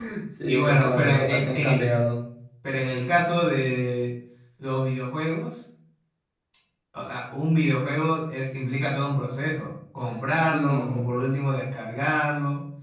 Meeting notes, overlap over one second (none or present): present